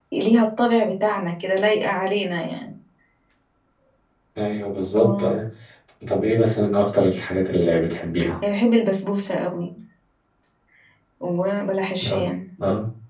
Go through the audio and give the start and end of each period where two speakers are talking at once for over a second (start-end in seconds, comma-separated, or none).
none